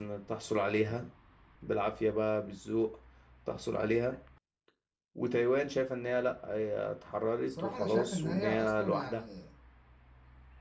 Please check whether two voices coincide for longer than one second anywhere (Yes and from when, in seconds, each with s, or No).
Yes, from 7.5 s